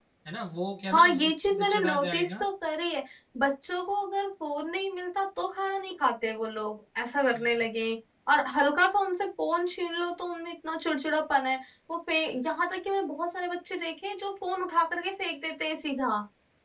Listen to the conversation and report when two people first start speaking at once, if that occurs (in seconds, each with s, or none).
0.9 s